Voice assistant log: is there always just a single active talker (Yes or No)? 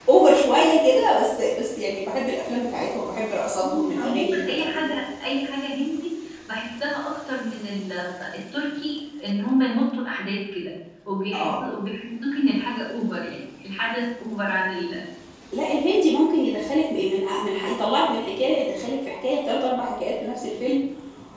No